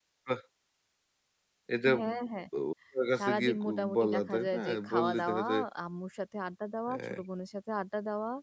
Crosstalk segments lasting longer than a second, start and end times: 3.2-5.4

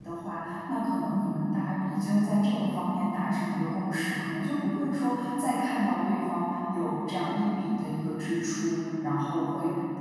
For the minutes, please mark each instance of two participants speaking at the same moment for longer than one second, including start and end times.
none

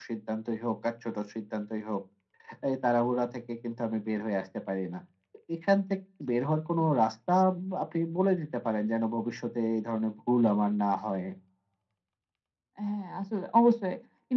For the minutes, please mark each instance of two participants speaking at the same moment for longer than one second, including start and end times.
none

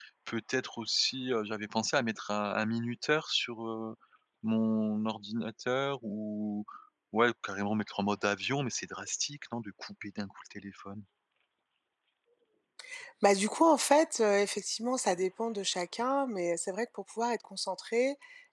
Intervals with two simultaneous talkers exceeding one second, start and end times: none

